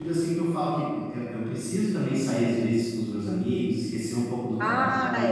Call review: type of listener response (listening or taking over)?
listening